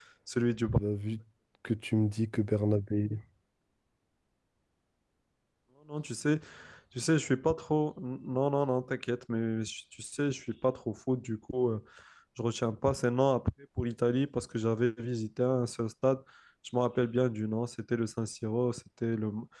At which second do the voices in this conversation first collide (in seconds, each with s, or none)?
none